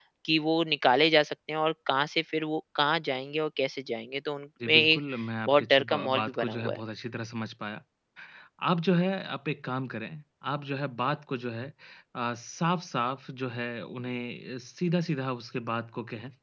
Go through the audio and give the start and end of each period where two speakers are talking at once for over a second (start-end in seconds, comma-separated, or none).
5.5-6.8